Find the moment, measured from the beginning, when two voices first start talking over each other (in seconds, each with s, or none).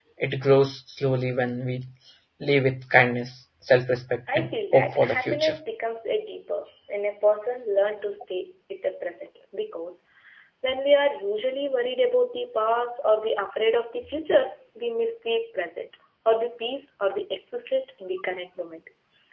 4.3 s